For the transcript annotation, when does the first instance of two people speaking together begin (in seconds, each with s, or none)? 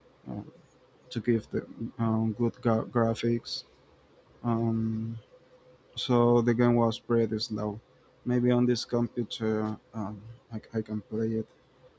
none